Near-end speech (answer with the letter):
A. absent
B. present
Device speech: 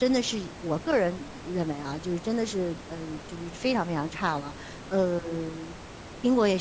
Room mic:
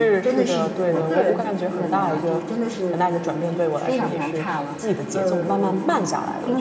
B